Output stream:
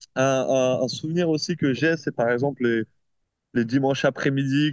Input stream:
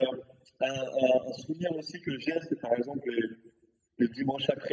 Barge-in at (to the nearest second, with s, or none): none